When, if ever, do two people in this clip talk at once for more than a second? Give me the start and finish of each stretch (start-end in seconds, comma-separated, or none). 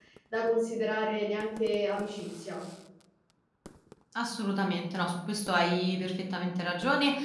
none